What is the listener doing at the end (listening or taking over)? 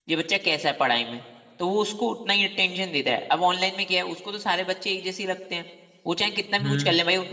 listening